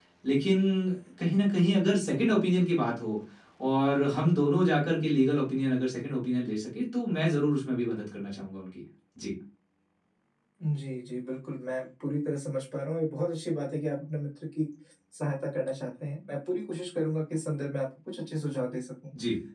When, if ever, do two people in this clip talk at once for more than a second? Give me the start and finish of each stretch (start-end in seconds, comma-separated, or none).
none